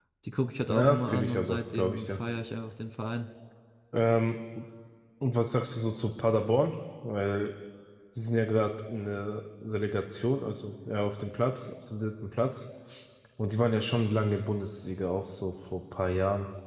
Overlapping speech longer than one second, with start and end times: 0.7-2.2

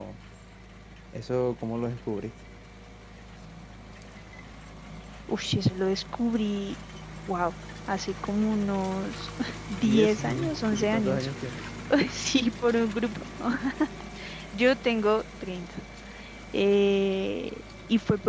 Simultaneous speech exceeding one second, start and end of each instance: 9.8-11.3

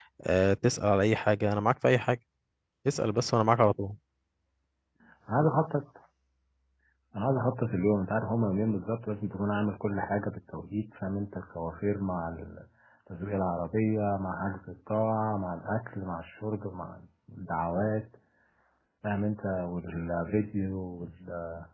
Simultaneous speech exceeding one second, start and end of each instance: none

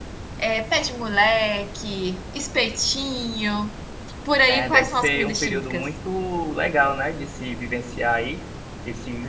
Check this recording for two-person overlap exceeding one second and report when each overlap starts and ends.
4.5-5.9

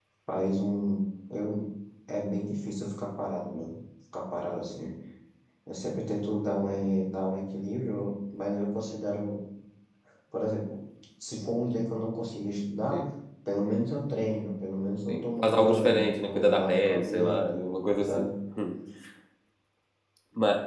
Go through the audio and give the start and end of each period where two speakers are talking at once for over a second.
15.1-17.6

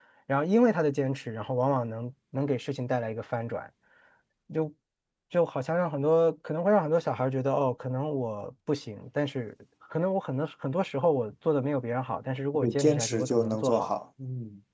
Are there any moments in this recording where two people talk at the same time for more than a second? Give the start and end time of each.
12.6-13.9

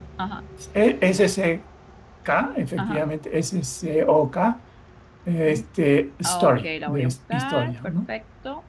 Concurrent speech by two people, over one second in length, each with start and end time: 6.2-7.9

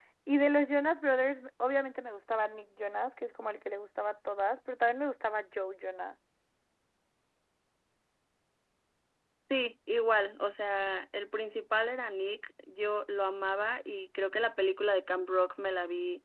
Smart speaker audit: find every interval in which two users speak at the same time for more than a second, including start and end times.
none

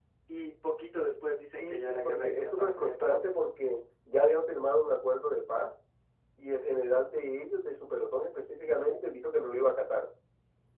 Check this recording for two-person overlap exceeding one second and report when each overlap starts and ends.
1.6-3.2

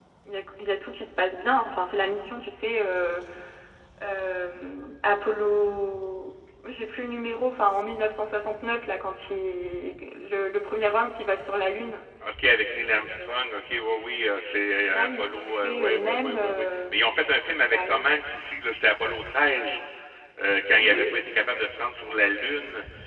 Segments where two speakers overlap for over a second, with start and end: 14.9-16.8

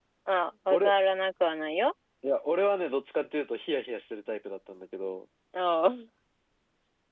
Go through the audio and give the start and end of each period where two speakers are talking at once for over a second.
none

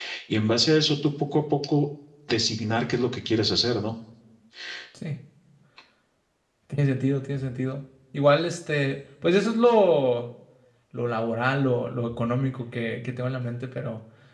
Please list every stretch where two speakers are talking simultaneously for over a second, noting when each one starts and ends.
none

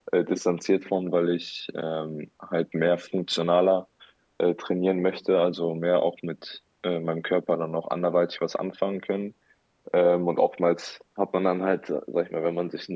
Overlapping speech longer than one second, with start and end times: none

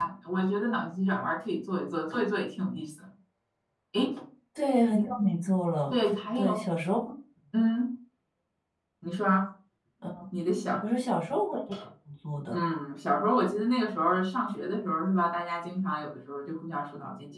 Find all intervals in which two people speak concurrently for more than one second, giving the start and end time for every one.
none

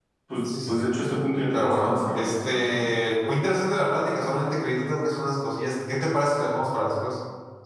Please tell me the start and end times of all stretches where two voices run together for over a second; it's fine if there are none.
1.5-2.9

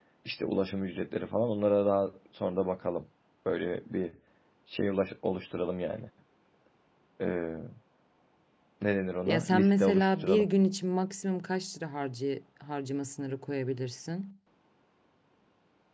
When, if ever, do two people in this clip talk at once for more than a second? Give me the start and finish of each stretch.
9.3-10.5

